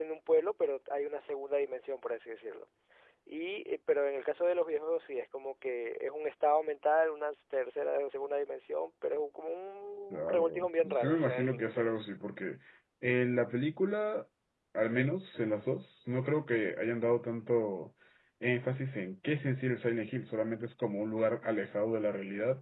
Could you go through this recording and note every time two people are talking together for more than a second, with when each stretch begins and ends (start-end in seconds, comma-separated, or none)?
10.1-11.9